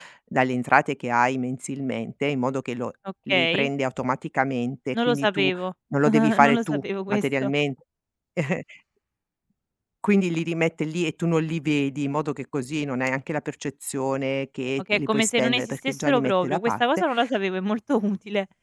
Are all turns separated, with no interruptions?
No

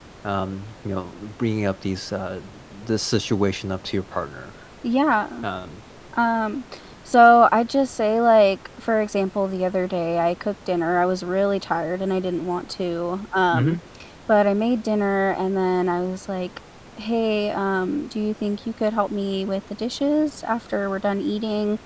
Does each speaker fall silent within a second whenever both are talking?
Yes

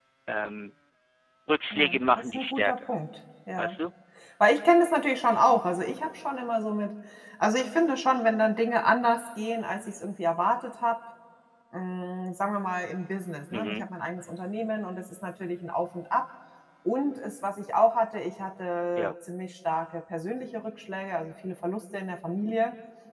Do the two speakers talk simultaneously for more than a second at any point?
Yes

